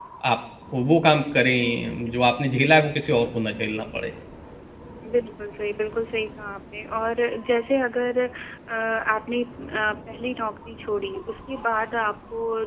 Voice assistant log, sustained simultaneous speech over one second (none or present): none